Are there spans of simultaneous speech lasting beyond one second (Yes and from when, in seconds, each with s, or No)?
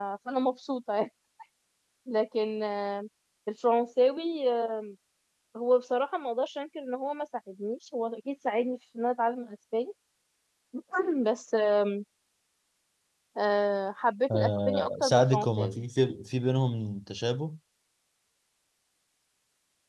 Yes, from 14.3 s